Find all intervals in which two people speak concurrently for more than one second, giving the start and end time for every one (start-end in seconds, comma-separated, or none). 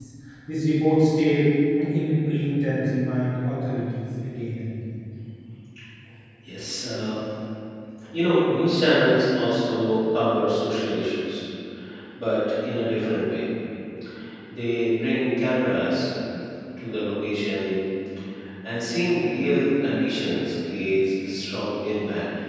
none